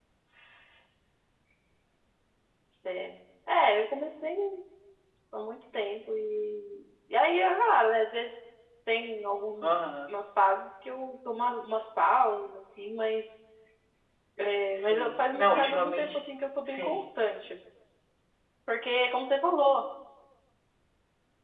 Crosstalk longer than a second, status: present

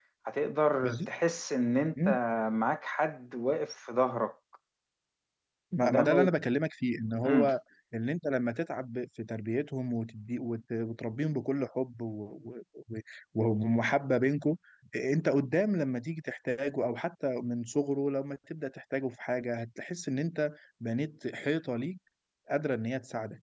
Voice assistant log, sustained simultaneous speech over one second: none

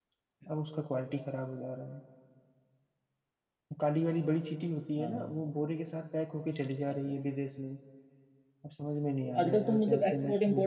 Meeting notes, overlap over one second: present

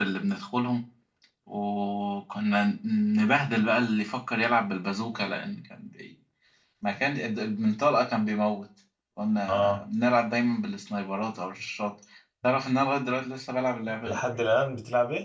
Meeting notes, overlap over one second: none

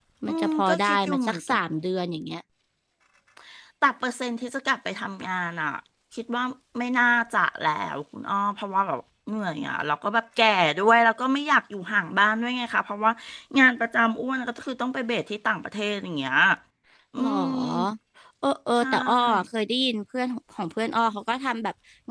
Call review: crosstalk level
present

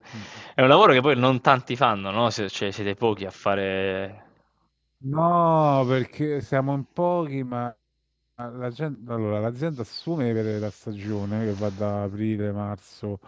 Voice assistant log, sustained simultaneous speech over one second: none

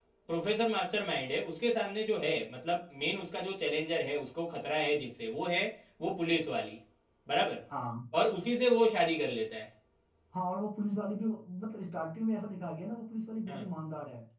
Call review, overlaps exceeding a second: none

